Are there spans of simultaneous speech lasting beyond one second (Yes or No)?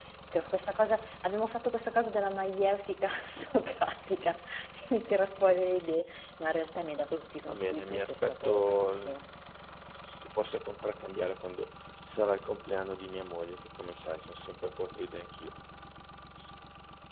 Yes